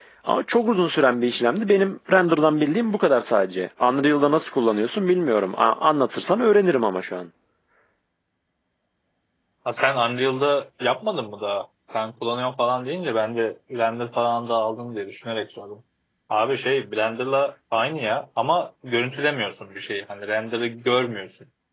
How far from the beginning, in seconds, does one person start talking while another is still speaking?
none

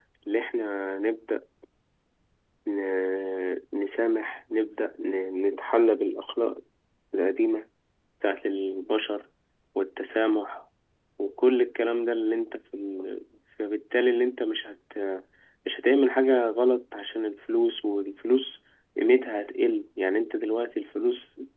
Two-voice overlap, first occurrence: none

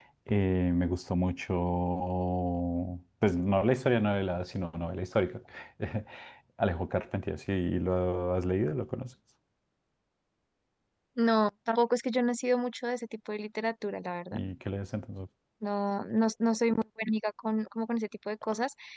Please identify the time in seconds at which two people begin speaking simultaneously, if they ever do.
none

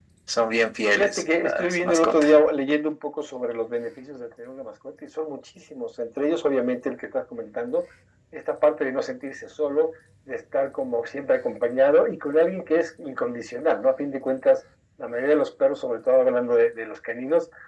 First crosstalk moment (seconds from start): 0.9 s

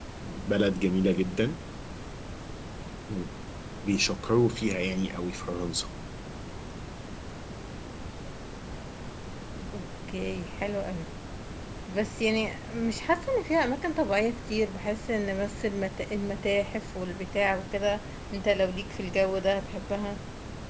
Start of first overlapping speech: none

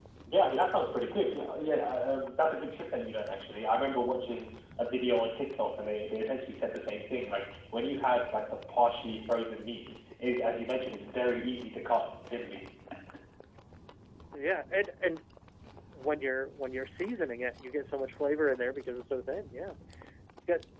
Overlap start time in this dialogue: none

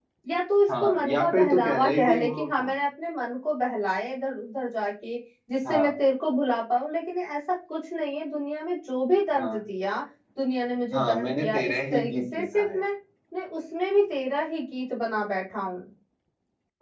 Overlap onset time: 0.8 s

